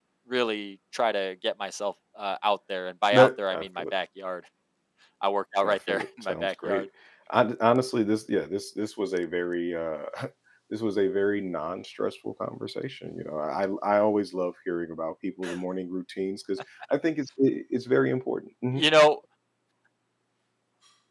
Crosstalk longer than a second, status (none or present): present